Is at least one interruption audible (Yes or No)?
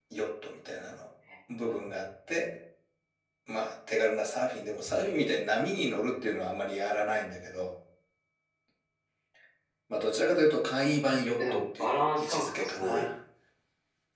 Yes